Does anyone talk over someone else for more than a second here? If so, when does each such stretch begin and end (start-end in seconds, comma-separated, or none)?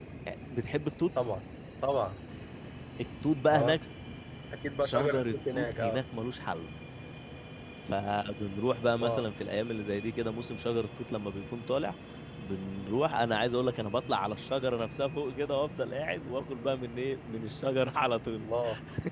4.8-6.0